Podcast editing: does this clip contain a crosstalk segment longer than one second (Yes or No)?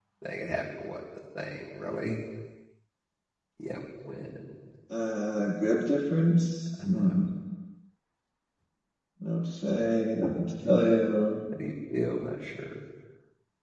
No